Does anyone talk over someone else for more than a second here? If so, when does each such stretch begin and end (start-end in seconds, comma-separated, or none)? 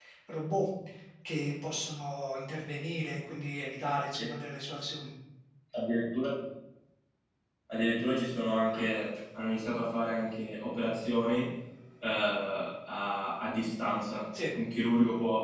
none